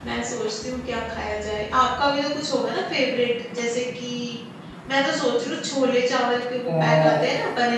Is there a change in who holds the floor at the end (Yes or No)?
No